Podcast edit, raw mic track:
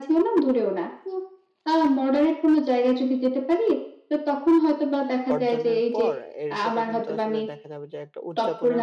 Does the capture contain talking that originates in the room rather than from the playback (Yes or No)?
Yes